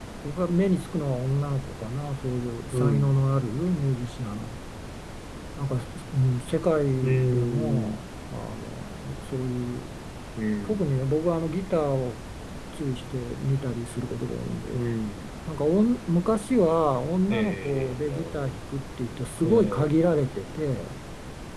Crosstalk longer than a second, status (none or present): present